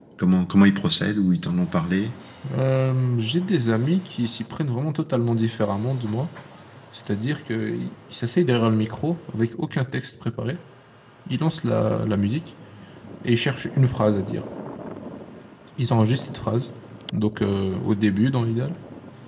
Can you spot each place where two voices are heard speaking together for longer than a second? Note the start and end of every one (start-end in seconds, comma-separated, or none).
none